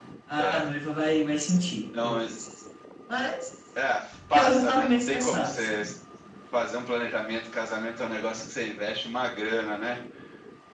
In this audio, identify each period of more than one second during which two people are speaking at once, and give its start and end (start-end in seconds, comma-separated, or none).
4.3-5.8